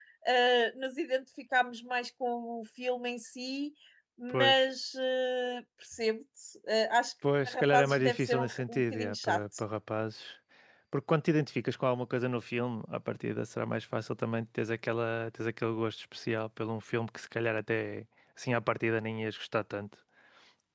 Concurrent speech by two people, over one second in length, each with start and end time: 7.5-9.4

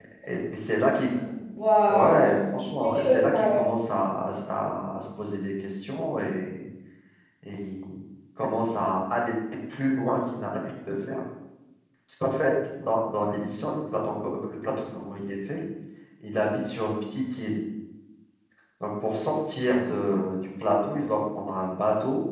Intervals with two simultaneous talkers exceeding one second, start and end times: 1.9-3.6

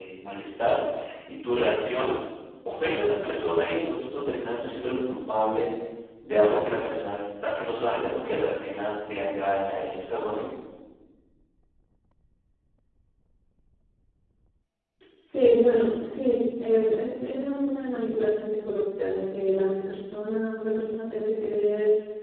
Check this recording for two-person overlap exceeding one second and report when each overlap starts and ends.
none

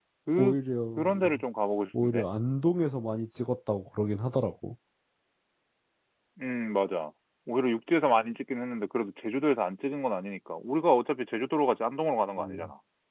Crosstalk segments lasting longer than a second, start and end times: none

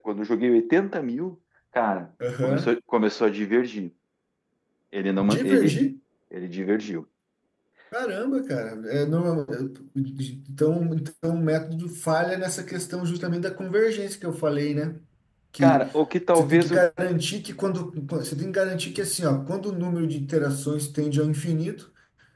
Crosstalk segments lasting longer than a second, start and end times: none

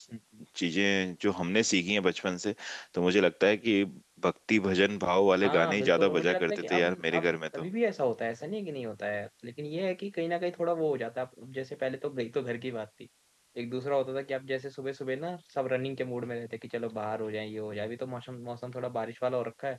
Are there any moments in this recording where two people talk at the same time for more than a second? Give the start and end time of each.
5.4-7.4

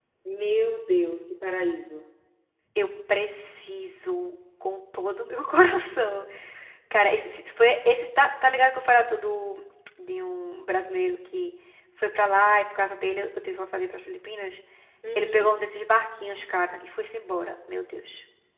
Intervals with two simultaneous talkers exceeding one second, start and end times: none

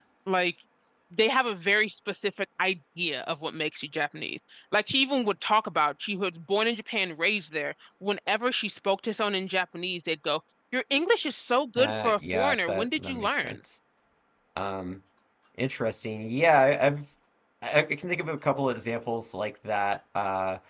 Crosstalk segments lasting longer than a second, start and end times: 11.8-13.6

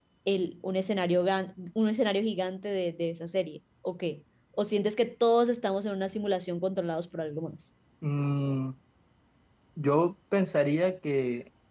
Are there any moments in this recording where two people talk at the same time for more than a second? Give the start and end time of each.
none

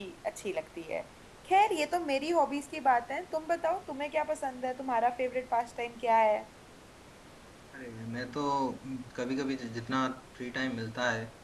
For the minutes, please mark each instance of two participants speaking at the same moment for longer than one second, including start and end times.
none

